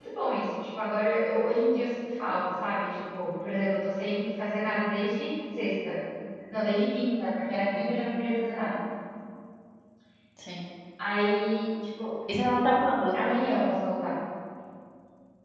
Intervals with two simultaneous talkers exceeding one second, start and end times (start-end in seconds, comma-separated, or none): none